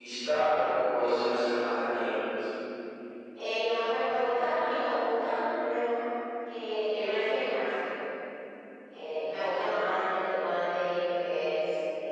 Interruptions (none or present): none